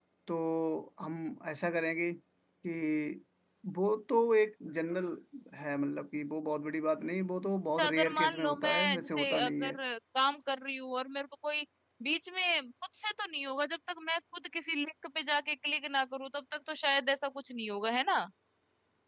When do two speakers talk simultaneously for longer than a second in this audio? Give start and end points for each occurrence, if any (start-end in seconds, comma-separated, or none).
7.8-9.8